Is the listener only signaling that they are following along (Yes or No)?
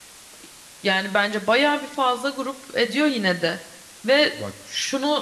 Yes